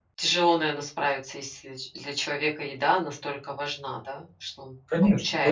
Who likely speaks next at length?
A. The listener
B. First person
A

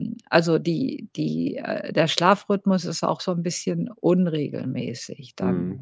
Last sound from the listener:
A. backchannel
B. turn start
B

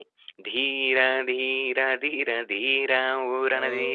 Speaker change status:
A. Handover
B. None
B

